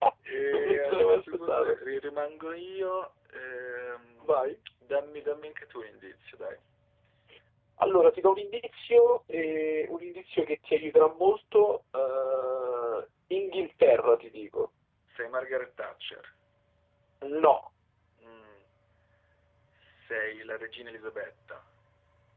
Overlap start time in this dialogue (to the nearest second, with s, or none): 1 s